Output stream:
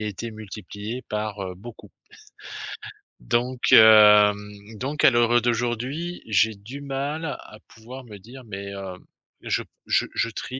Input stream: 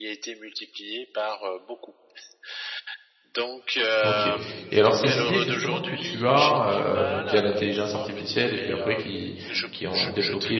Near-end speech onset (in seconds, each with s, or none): 4.0 s